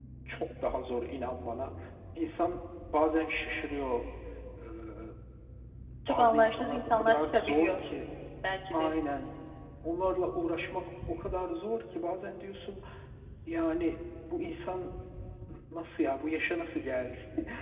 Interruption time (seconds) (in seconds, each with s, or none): 6.1 s